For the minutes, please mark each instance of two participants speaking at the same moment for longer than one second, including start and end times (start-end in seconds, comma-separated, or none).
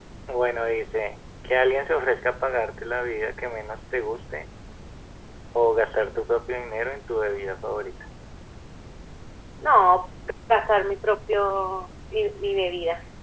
none